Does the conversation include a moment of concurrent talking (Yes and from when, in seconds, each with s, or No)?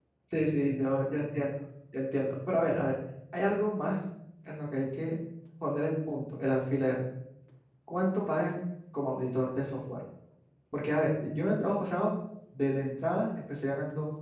No